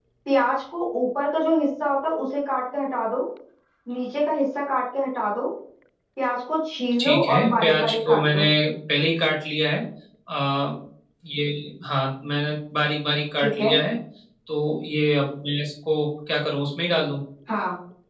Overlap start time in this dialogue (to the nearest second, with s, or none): 7 s